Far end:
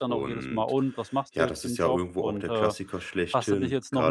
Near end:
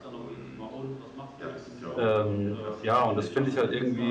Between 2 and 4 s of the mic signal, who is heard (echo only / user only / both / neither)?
both